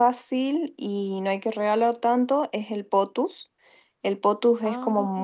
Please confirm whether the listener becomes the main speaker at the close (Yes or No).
No